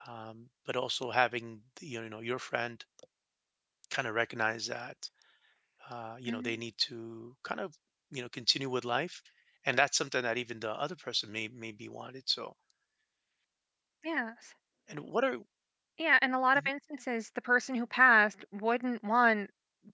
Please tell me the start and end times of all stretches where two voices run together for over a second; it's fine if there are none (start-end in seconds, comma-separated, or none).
none